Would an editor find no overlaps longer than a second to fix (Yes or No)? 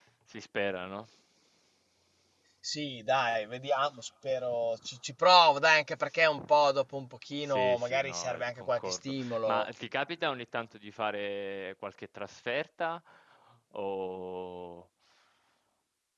No